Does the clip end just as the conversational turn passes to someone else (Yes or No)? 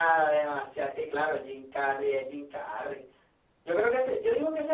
No